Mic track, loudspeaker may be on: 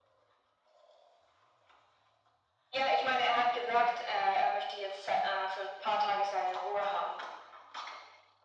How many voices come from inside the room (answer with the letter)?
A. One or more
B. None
B